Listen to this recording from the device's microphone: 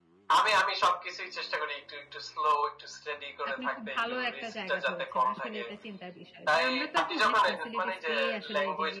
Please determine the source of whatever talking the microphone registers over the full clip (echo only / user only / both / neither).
both